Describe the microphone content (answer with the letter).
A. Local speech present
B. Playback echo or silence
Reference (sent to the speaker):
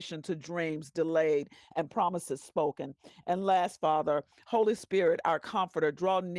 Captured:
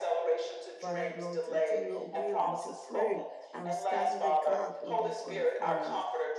A